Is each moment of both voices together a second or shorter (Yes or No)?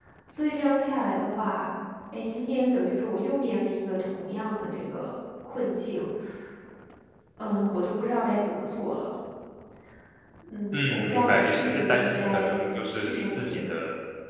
No